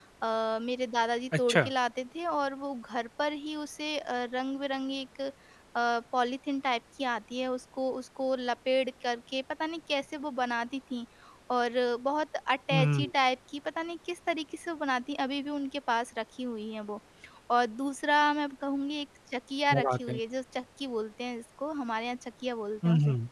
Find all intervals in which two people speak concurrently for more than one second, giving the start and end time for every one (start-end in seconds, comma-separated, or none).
none